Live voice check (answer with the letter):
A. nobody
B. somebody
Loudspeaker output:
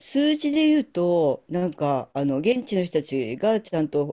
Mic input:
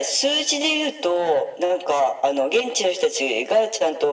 A